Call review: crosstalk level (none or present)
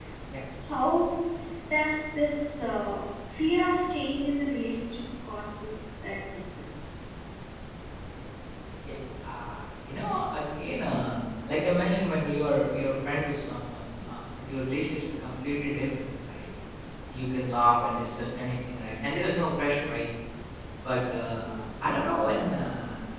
none